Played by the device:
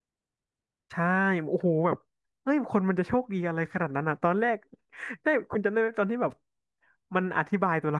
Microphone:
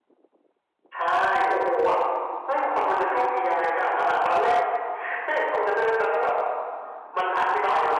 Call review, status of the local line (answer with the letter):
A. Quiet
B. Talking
A